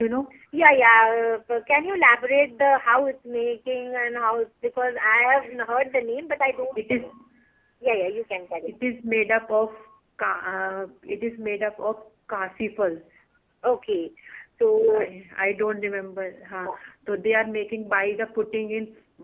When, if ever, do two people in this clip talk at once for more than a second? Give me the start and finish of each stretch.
none

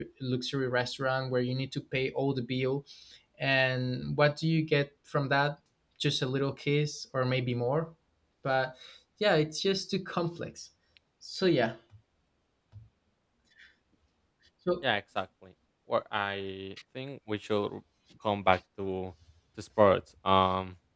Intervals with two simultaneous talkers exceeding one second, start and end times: none

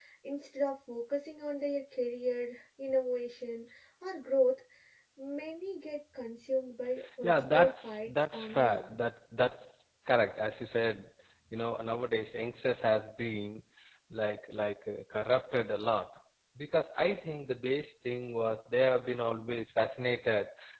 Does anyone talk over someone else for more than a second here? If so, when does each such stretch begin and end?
7.2-8.9

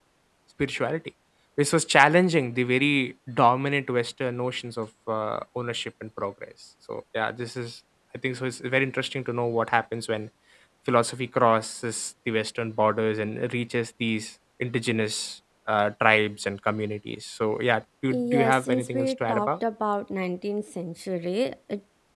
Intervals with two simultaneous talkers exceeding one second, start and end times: 18.1-19.5

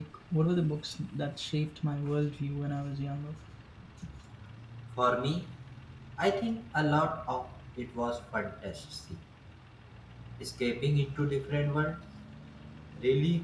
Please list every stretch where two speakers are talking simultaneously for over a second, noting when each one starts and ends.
none

